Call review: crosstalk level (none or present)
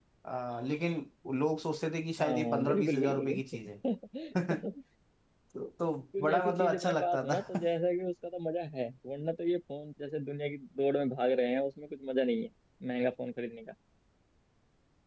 present